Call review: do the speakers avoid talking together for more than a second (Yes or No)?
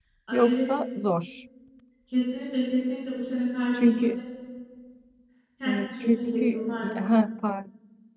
No